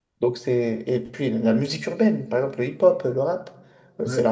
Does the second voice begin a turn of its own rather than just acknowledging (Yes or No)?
No